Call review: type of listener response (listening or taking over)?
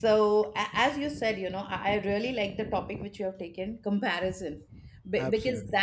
listening